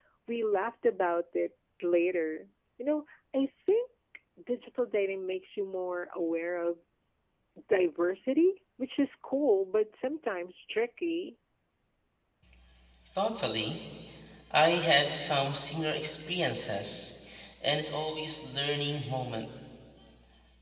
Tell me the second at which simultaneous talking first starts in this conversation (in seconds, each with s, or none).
none